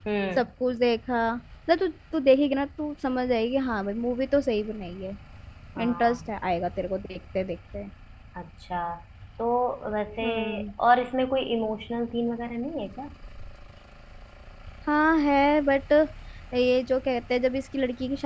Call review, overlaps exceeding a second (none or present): none